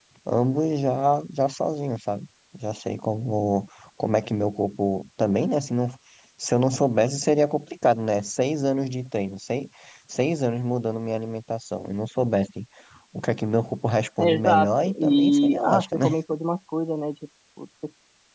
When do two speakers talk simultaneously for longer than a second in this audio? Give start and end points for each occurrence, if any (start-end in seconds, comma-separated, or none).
14.2-16.1